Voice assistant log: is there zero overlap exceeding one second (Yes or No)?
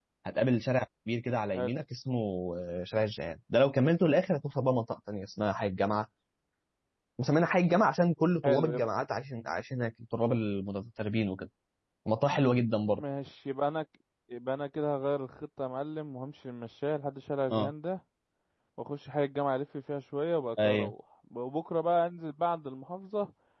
Yes